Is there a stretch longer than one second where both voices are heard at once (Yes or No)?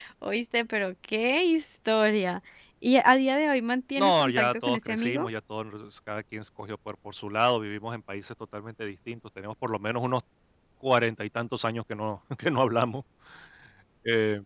Yes